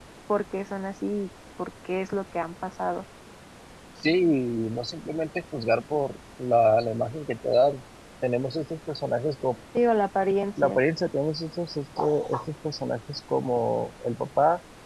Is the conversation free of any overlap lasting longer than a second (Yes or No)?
Yes